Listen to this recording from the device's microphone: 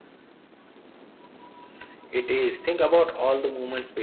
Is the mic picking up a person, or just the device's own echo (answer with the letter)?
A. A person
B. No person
B